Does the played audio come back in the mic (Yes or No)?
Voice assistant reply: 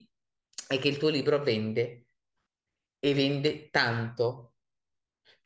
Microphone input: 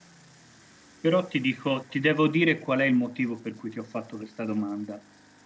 No